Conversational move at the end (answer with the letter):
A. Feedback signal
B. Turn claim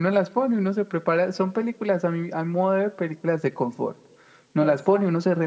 A